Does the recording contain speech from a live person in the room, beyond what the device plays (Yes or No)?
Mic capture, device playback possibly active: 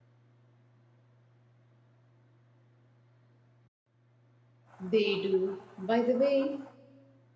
Yes